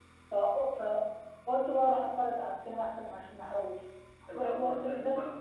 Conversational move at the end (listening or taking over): taking over